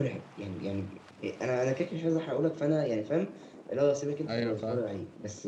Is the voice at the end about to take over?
No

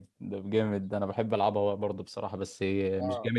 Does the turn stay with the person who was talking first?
No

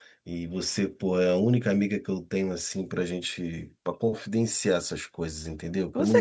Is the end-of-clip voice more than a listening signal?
Yes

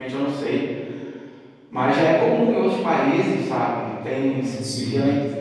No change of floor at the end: Yes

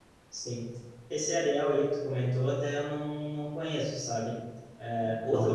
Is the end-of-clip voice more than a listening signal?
No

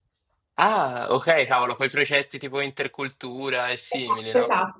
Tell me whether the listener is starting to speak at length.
Yes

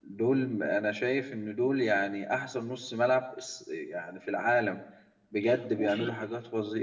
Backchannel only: Yes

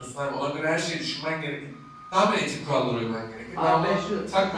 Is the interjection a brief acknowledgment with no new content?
No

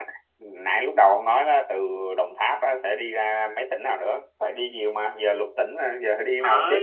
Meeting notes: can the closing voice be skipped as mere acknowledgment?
No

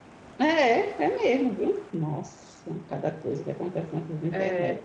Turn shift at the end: Yes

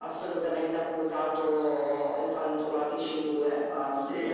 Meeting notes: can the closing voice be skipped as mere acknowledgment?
Yes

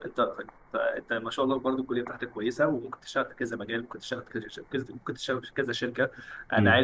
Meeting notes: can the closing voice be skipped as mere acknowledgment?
Yes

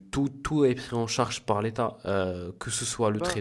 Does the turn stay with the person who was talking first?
Yes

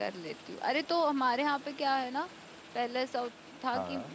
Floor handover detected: No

